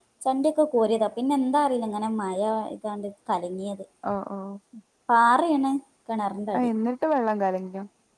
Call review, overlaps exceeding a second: none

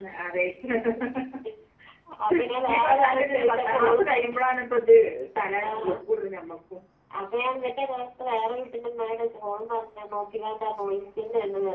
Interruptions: present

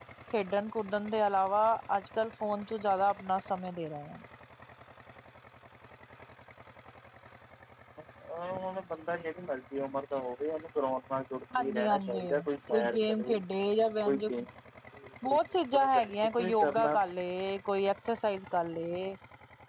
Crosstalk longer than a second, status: present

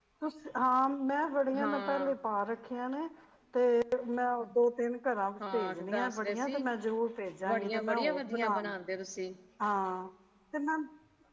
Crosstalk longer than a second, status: present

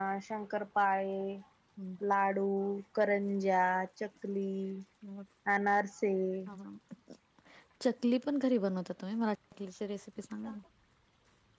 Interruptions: none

